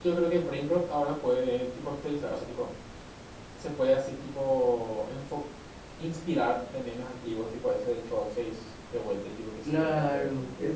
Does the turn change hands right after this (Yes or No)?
Yes